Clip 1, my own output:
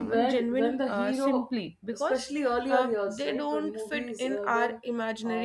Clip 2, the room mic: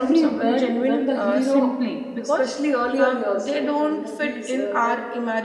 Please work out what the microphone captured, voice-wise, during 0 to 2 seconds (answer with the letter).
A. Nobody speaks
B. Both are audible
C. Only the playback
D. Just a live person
C